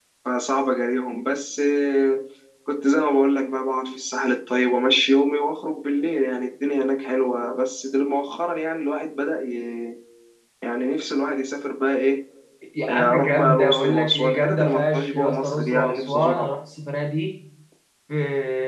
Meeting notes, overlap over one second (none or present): present